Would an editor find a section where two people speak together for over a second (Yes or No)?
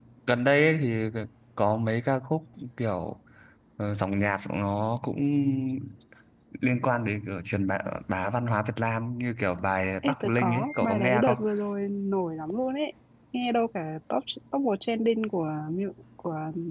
Yes